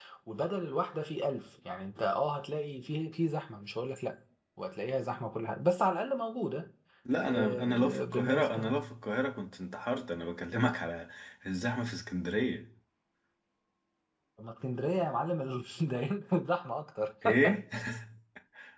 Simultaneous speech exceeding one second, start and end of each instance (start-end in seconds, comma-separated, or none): 7.2-8.7